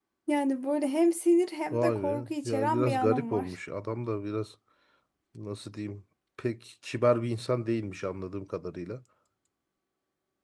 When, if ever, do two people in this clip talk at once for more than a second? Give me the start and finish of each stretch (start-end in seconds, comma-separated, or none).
1.7-3.6